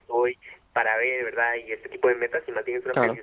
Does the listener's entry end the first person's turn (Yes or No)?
No